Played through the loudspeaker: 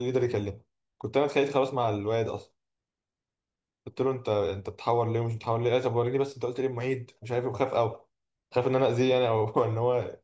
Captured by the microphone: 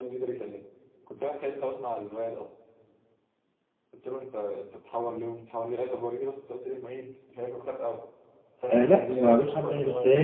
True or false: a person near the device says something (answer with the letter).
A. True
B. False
A